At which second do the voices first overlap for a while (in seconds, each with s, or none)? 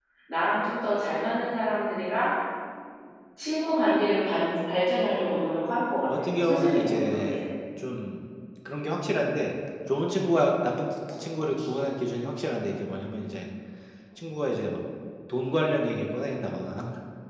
6.1 s